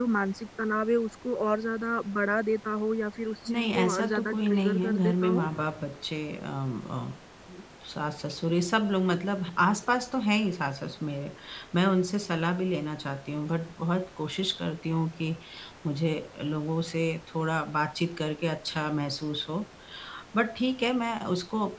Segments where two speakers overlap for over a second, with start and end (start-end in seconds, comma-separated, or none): 3.5-5.5